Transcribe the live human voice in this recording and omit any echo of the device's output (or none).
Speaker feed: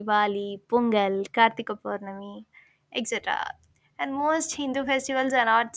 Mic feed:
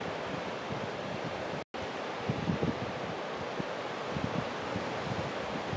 none